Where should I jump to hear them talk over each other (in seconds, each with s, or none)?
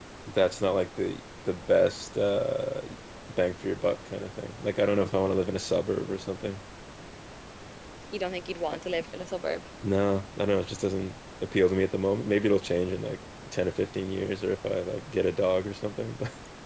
none